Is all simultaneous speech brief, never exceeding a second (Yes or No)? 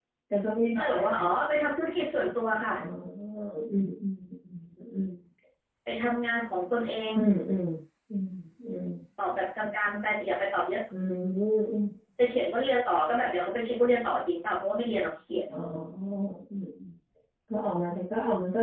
Yes